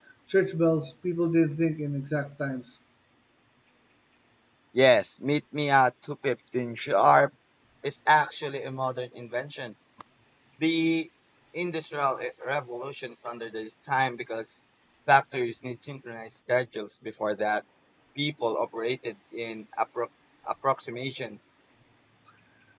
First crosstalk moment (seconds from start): none

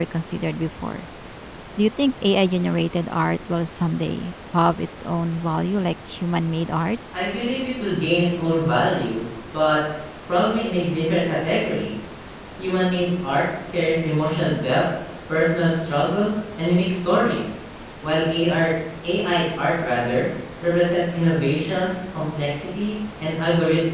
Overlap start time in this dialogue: none

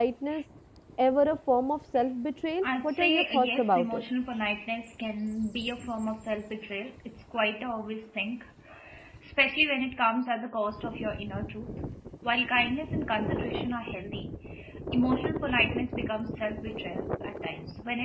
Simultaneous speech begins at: 3 s

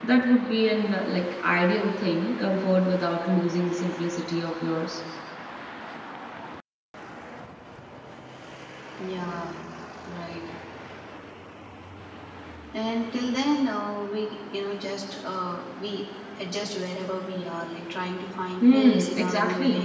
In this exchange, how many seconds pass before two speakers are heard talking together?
19 s

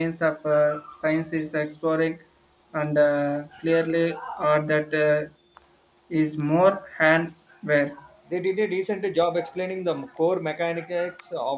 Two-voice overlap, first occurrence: none

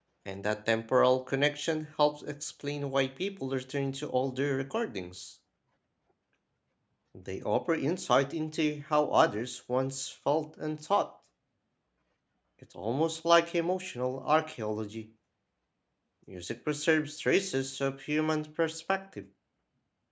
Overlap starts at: none

